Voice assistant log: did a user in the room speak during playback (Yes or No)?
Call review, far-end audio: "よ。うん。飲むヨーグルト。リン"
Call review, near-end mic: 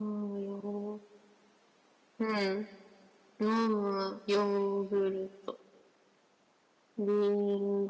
No